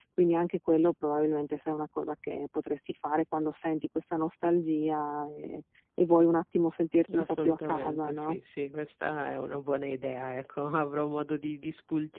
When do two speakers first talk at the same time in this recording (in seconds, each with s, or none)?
7.1 s